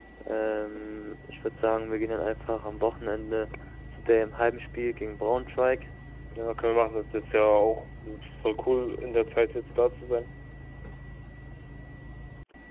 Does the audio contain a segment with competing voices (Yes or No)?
No